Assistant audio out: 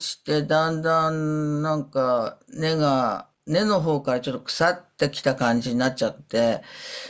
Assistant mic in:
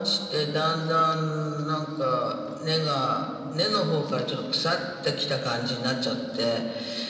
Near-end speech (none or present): none